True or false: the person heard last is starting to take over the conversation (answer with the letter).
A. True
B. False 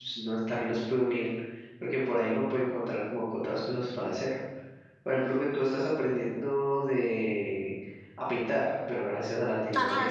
A